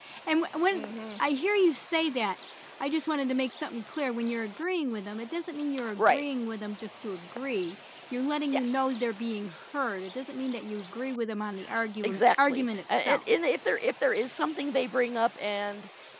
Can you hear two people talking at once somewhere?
Yes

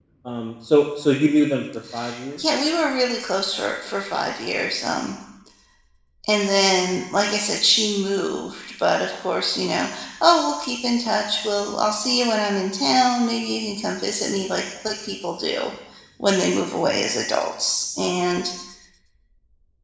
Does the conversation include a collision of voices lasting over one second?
No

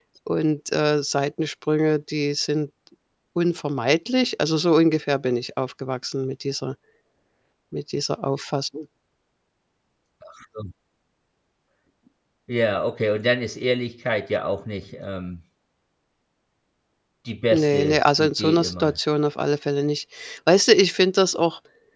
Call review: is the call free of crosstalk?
No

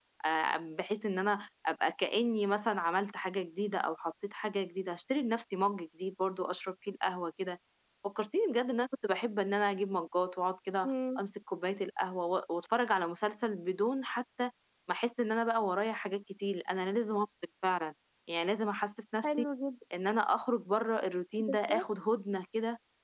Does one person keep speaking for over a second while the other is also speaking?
No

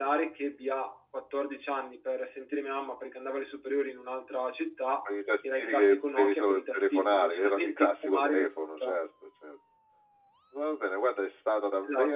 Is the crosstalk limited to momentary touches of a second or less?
No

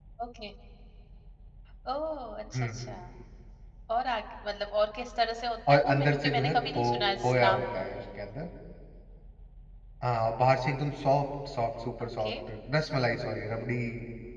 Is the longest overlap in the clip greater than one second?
Yes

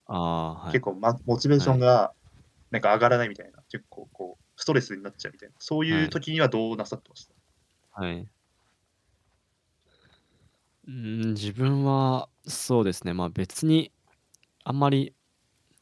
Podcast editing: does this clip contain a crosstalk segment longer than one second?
No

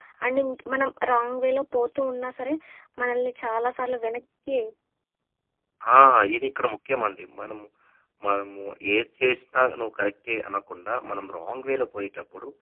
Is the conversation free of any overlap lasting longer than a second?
Yes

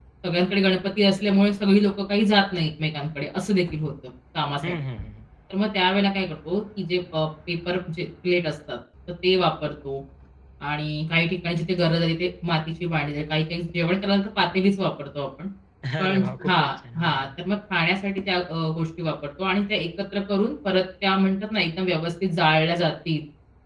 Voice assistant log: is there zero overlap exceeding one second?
No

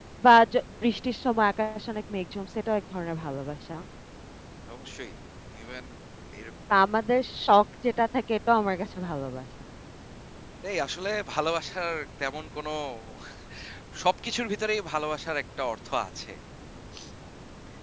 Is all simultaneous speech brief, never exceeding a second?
Yes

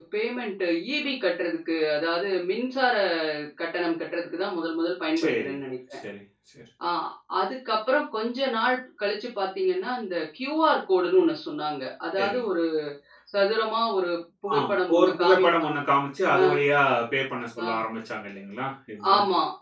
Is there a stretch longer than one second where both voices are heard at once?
Yes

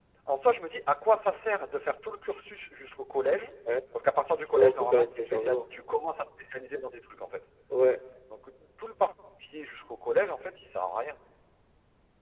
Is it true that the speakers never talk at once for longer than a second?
No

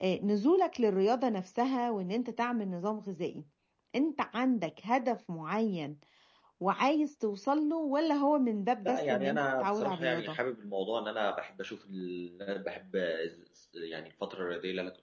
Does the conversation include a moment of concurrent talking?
Yes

